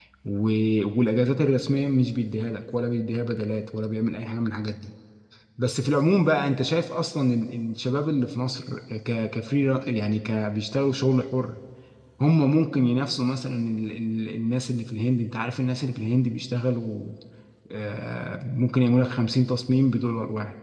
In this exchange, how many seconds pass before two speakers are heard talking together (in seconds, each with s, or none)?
none